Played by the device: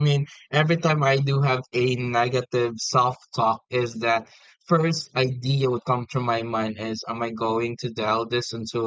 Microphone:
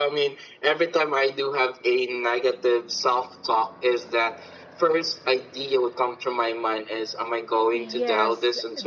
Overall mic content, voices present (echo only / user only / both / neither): both